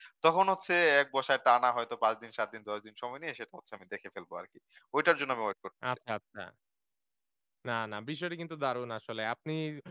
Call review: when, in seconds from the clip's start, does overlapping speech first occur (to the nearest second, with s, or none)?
none